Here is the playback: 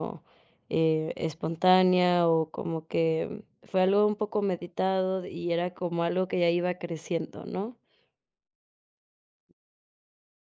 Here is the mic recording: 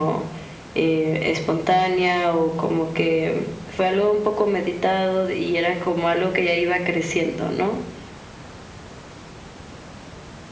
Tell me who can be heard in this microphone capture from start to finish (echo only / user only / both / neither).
echo only